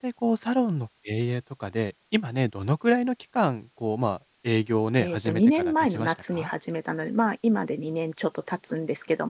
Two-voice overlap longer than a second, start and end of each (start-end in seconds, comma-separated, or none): 5.0-6.5